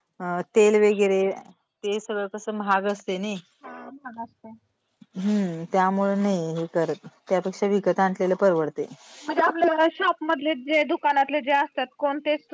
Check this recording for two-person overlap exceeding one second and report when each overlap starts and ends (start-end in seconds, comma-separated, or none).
none